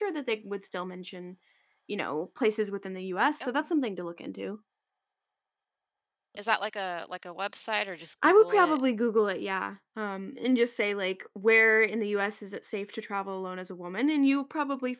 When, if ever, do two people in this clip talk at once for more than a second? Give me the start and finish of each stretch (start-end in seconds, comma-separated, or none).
none